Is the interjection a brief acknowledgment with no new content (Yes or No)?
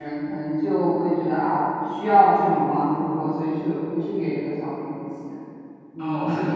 No